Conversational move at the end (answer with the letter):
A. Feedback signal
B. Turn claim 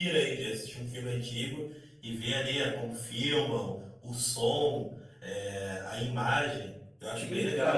B